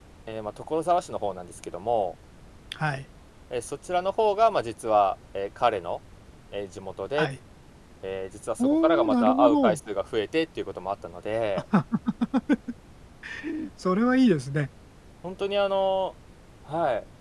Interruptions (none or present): present